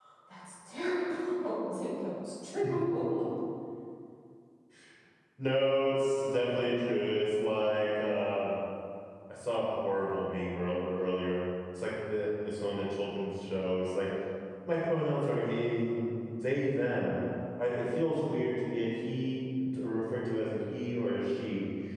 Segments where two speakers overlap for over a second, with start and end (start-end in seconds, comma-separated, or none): none